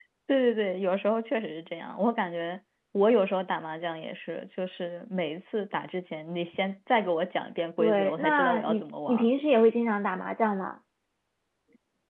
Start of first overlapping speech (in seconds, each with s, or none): 7.8 s